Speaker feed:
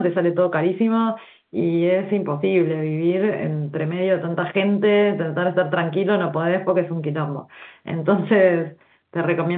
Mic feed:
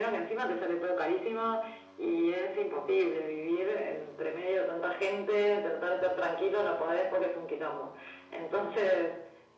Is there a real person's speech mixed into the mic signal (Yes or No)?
No